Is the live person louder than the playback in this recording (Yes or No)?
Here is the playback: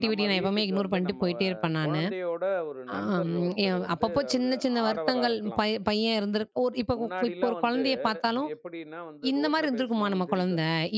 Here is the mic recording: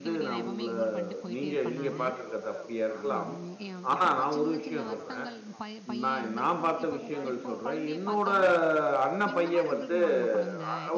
Yes